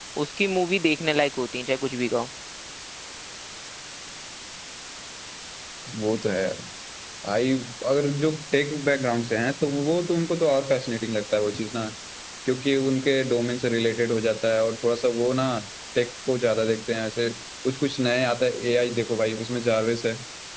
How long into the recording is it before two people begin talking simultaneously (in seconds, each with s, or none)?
none